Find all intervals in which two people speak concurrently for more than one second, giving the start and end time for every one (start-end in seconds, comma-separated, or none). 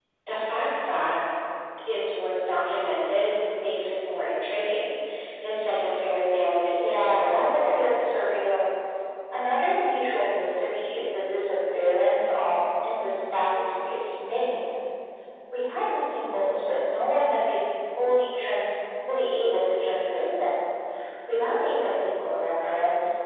6.8-8.2